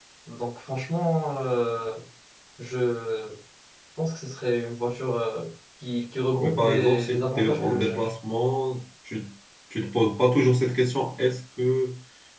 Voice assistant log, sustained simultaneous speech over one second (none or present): present